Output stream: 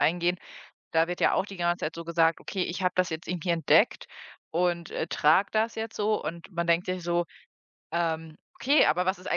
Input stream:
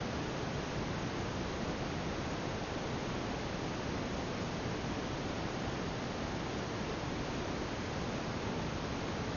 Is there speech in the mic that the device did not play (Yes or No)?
No